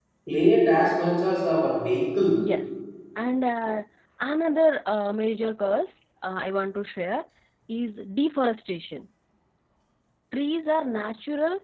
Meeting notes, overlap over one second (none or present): none